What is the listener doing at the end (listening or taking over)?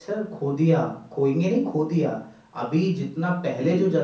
listening